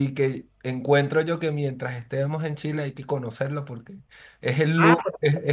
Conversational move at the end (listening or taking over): listening